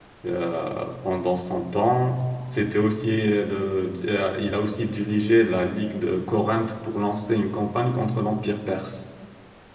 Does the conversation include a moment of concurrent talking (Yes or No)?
No